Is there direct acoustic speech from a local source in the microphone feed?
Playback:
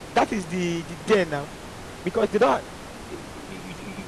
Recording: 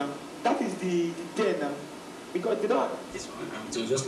Yes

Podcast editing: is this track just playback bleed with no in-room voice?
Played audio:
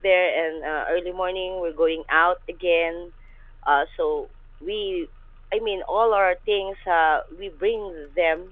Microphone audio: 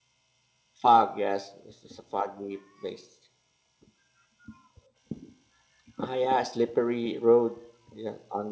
No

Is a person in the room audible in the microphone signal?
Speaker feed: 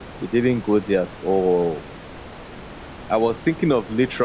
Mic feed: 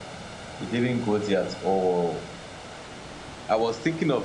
No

